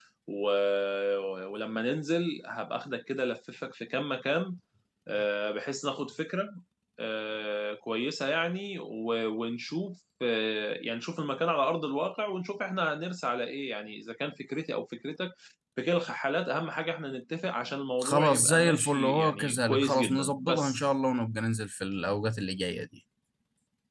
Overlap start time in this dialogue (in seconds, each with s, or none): 18.0 s